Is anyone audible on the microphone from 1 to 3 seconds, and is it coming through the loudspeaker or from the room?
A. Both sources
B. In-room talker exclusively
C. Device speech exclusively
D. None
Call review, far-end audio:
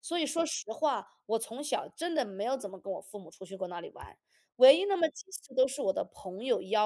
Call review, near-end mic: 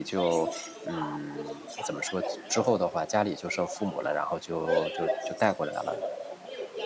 A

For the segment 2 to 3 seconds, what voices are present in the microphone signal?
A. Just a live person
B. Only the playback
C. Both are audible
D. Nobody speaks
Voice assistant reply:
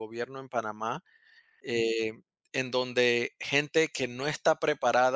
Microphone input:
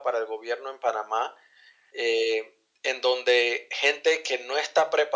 B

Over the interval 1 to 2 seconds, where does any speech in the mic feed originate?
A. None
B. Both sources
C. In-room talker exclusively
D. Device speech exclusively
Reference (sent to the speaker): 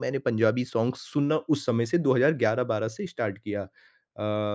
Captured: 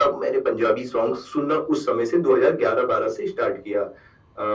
D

